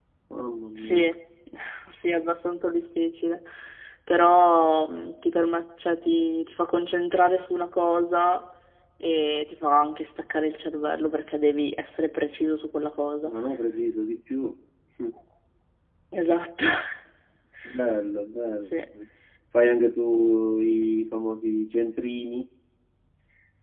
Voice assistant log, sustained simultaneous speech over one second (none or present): none